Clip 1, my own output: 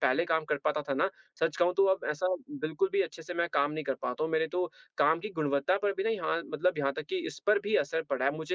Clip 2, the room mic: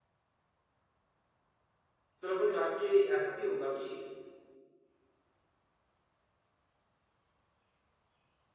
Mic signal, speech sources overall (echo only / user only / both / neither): user only